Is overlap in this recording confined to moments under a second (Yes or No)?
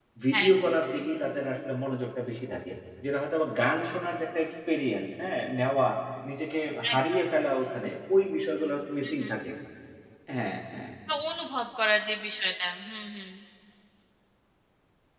Yes